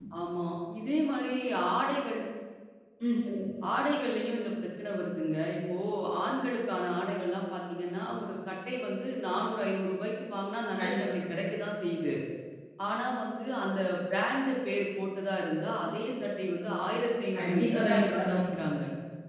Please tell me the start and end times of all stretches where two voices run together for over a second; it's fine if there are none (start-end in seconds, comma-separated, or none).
17.4-18.6